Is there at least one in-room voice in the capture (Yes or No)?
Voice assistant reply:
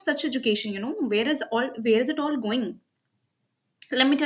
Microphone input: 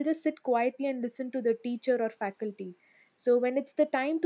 Yes